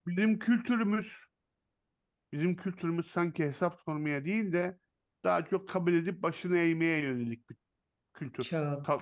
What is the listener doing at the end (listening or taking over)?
taking over